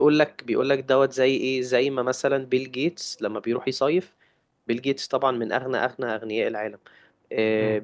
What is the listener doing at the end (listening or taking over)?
listening